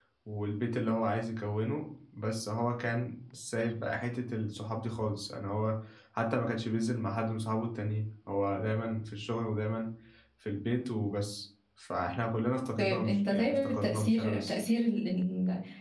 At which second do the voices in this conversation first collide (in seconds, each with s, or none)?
12.8 s